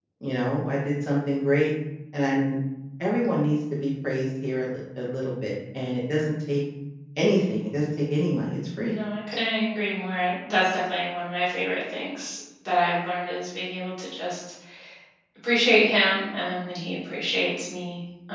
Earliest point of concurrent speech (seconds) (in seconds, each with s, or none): none